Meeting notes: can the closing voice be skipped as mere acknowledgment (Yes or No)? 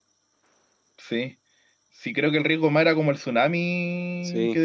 Yes